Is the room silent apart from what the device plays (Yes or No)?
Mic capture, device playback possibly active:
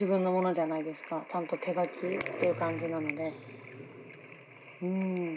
No